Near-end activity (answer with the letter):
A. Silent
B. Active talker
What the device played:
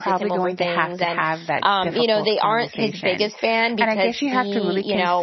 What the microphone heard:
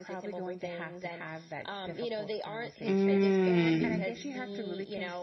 B